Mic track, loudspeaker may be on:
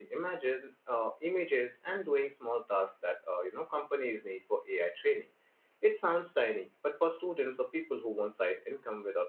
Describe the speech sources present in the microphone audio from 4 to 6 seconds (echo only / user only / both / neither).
user only